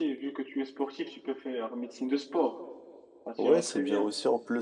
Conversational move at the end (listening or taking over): taking over